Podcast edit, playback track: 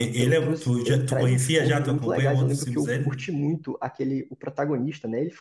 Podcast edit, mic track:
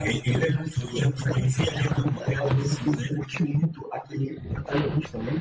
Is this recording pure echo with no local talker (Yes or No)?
Yes